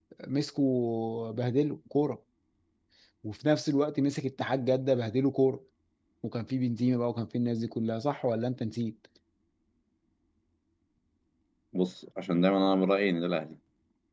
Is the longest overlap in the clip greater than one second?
No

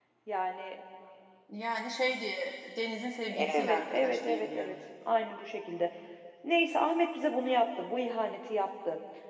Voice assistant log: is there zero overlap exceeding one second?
No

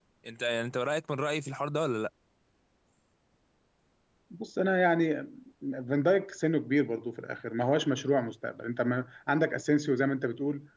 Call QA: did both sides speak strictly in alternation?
Yes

